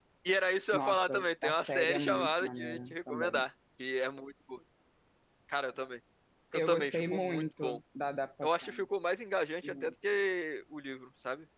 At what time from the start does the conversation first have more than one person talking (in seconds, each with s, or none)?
0.7 s